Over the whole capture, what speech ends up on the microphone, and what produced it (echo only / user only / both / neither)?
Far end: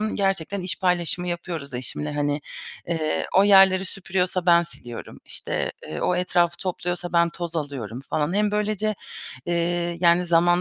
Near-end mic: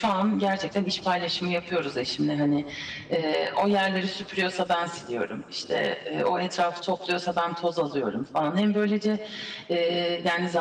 echo only